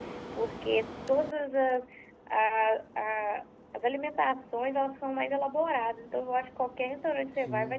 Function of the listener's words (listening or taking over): listening